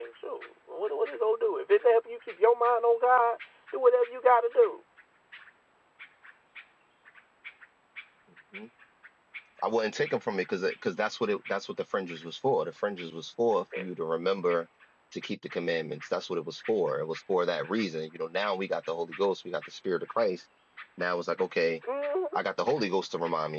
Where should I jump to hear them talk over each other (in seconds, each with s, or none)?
none